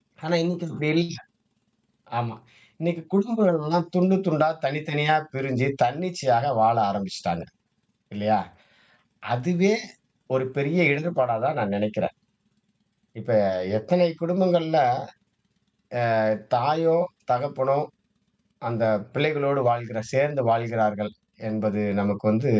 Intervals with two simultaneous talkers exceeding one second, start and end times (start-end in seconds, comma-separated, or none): none